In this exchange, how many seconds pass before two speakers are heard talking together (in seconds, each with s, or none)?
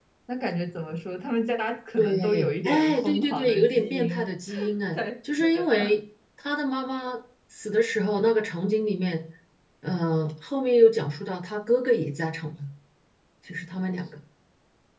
2.0 s